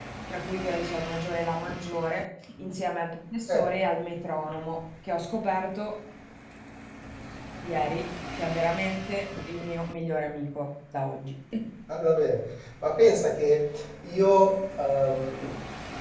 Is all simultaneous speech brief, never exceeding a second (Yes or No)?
Yes